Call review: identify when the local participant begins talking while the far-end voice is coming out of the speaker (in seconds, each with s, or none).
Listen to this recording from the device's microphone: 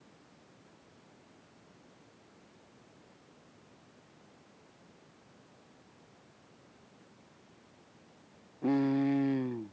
8.6 s